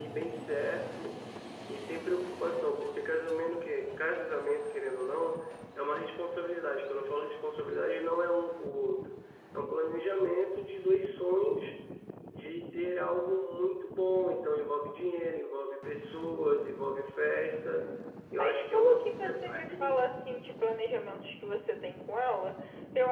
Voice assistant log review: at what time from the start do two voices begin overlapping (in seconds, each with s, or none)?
18.3 s